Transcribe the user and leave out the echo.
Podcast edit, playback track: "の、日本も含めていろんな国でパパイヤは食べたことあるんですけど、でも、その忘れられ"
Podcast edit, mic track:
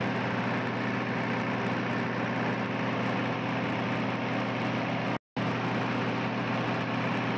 none

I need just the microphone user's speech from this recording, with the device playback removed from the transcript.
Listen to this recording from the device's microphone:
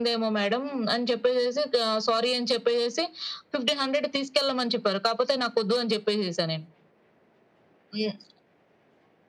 none

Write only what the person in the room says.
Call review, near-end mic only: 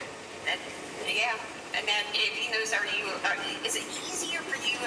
none

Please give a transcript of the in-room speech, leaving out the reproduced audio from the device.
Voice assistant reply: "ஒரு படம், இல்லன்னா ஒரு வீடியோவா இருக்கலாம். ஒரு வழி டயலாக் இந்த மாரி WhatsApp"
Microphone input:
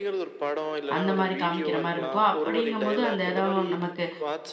அந்த மாரி காமிக்கிற மாரி இருக்கும். அப்படிங்கும்போது அந்த இடம் நமக்கு

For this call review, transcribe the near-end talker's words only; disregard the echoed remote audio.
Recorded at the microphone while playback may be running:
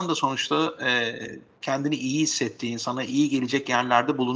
none

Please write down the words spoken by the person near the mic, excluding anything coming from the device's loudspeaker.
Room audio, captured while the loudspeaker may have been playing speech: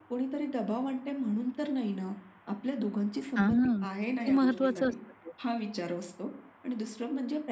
हां, किती महत्वाचं असतं ते.

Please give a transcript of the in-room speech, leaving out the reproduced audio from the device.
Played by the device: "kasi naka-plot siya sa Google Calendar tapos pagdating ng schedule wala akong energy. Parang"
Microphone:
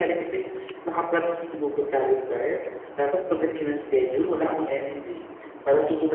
none

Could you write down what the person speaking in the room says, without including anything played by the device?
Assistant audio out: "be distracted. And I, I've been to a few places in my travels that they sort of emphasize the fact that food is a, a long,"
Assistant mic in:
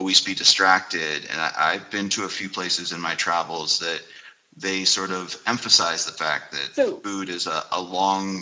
So

